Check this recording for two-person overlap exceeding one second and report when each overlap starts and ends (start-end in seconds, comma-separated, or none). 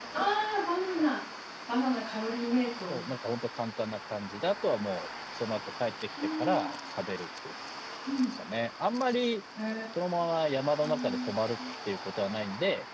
none